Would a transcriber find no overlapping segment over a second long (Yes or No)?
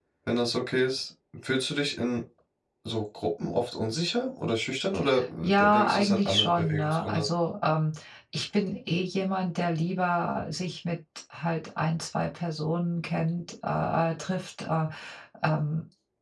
No